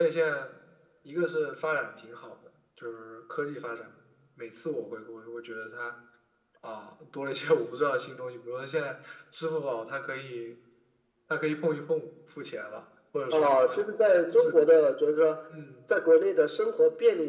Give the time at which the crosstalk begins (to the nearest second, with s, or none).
13 s